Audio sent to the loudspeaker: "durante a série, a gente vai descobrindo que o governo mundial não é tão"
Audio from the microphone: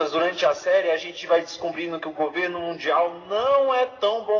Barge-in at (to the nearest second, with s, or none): none